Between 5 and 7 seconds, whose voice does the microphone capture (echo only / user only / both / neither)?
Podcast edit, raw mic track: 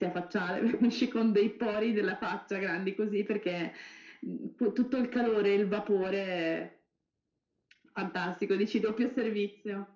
echo only